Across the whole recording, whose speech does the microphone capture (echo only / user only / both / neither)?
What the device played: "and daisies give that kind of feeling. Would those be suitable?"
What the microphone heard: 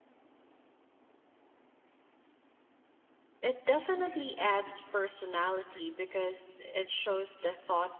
user only